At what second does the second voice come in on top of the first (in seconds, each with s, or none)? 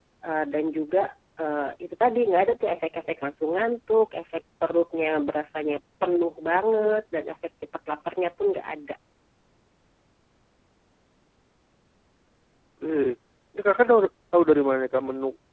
none